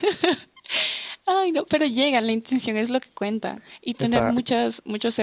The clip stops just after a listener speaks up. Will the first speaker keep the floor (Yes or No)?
Yes